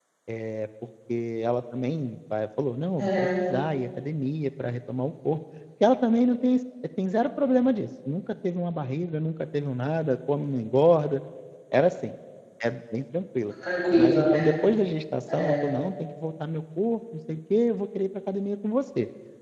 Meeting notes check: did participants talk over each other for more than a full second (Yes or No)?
No